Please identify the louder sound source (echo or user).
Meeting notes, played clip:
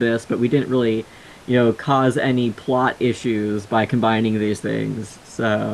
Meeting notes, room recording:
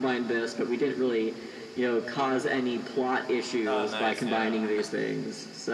echo